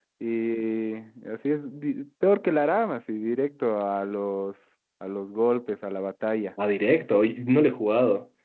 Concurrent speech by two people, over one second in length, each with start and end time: none

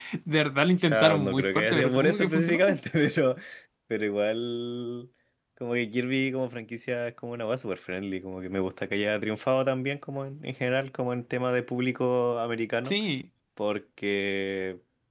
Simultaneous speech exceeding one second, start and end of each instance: 0.8-2.8

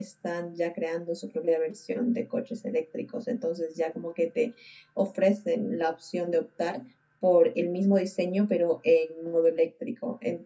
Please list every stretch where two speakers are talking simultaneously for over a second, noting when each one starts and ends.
none

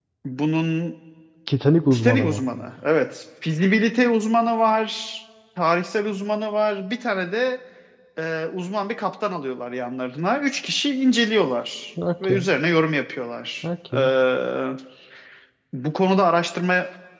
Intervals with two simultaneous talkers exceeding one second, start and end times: none

